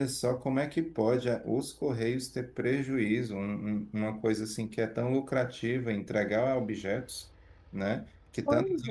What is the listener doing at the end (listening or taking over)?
listening